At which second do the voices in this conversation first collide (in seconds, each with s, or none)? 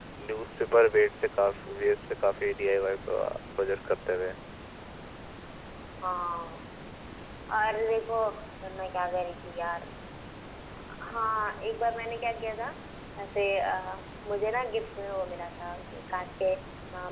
none